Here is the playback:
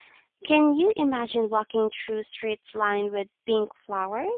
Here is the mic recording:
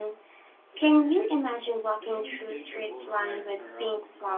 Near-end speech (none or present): present